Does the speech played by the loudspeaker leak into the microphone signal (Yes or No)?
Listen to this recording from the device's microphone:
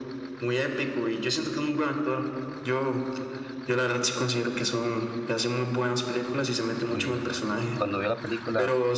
Yes